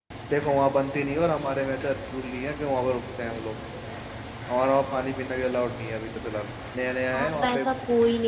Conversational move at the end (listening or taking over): taking over